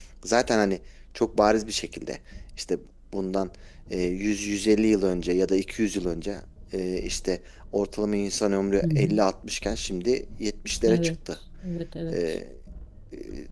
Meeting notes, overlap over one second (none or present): none